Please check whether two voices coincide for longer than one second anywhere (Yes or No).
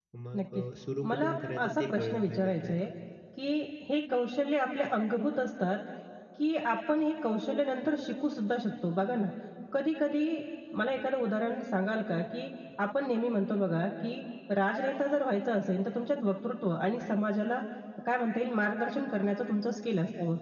Yes